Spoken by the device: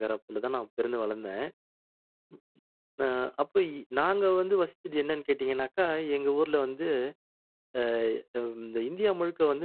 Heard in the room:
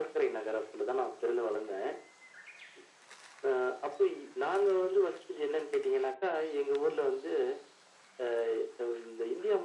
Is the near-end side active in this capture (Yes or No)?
No